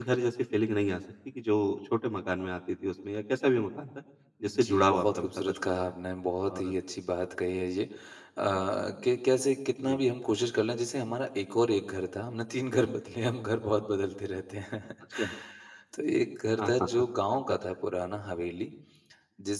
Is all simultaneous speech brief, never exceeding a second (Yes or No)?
No